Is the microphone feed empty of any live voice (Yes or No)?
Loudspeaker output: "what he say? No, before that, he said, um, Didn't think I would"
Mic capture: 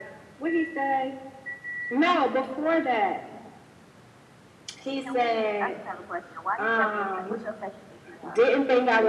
No